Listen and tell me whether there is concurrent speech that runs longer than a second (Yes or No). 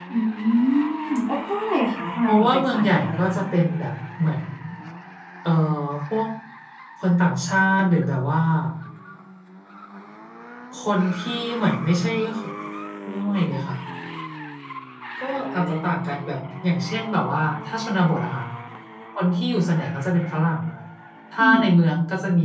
Yes